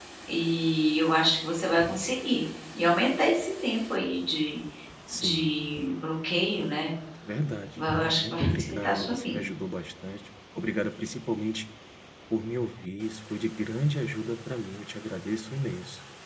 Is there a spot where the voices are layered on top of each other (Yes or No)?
Yes